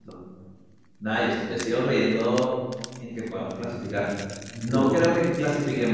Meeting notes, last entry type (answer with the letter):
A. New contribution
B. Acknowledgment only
B